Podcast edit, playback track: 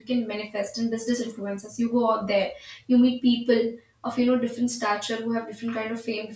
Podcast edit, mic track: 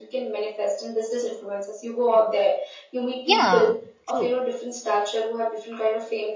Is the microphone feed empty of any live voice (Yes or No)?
No